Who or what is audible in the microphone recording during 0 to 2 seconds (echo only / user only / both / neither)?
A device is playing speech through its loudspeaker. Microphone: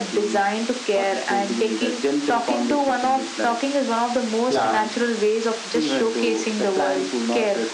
echo only